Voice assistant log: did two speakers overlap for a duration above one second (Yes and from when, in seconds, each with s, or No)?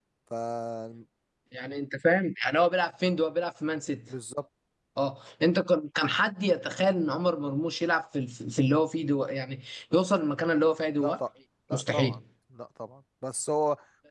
No